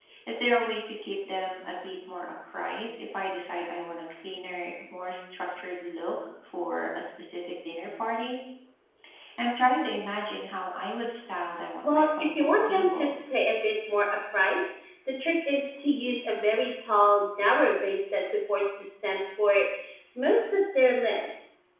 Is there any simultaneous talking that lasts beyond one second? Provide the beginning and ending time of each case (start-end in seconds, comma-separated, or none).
11.8-13.2